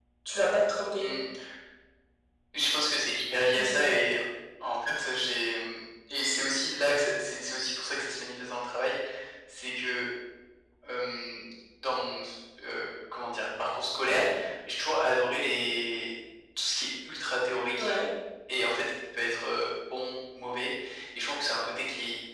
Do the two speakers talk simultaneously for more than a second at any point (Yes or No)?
No